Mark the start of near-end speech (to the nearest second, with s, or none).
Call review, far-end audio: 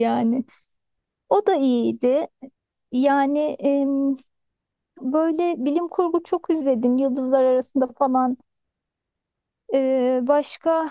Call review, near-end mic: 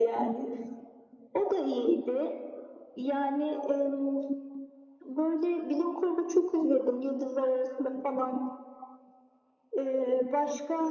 none